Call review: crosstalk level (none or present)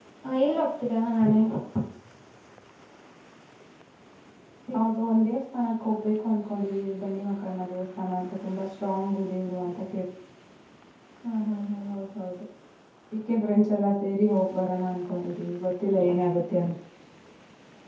none